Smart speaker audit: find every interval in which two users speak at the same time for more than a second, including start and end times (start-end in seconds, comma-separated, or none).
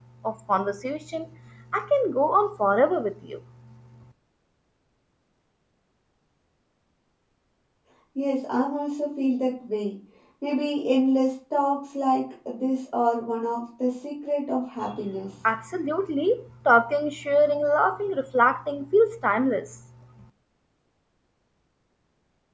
none